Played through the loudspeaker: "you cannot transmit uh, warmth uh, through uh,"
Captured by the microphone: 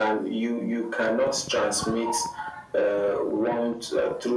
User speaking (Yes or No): No